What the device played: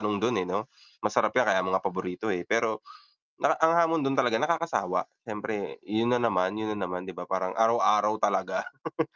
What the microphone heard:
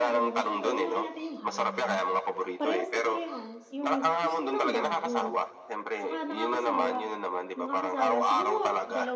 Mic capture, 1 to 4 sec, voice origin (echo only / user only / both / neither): both